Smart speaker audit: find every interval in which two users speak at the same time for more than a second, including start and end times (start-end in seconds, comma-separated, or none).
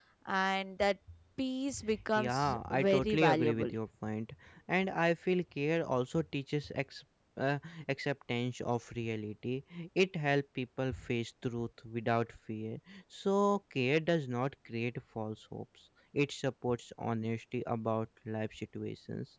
2.1-3.7